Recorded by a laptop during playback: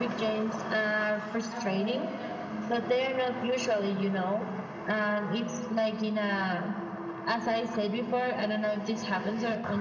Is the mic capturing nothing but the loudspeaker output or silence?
No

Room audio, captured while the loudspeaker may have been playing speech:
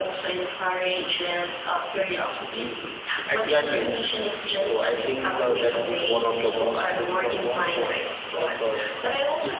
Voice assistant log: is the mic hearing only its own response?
No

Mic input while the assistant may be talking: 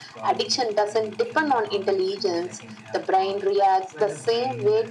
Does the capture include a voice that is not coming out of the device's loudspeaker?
Yes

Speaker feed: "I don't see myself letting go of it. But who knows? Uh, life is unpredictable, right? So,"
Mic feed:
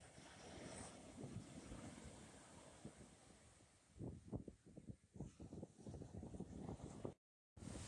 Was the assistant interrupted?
No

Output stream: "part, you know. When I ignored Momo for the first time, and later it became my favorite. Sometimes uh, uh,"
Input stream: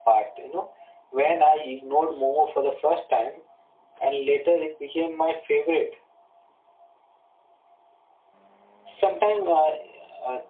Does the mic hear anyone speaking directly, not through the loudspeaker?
No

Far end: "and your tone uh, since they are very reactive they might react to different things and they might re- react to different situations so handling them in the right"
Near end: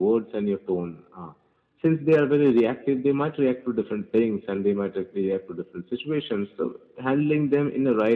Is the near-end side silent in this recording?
Yes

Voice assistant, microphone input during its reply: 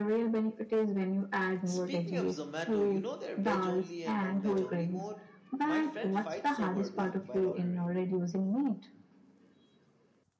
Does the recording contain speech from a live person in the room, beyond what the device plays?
Yes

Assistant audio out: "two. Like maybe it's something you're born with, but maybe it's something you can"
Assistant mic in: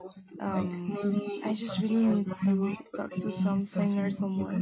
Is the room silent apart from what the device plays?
No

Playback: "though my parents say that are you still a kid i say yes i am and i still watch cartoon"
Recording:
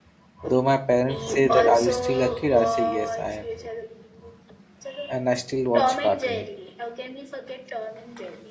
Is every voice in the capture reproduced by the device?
No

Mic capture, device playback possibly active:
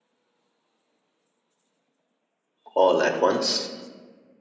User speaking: Yes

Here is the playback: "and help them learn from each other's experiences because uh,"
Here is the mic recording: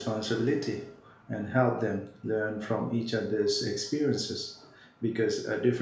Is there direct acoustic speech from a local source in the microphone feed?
No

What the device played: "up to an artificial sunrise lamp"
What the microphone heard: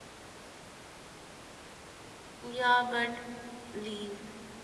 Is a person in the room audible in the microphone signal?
Yes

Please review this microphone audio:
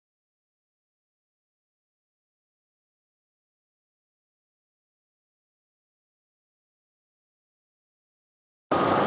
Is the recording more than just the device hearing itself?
No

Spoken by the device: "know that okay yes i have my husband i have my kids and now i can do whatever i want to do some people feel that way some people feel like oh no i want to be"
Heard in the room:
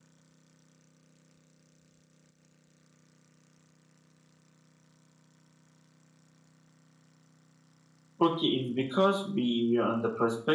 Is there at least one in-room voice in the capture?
Yes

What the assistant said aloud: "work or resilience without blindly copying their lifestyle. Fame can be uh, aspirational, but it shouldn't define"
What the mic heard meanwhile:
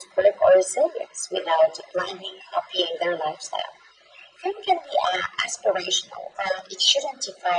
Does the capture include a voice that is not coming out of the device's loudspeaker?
No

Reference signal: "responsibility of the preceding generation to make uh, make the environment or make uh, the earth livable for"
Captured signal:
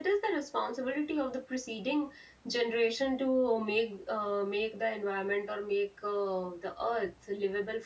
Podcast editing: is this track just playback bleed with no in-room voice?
Yes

